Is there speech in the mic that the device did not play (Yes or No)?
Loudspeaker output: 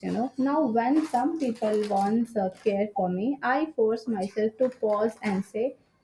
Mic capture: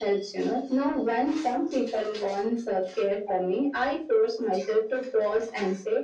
No